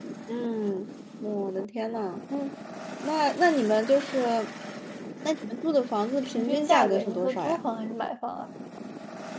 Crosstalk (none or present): present